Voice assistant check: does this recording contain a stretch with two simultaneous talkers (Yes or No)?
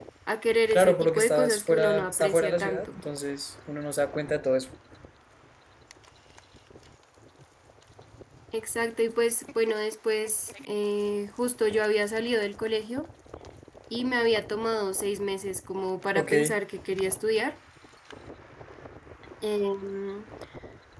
Yes